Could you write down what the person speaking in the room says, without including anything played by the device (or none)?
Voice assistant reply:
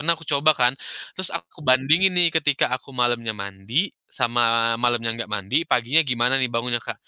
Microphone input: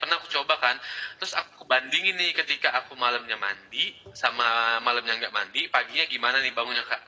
none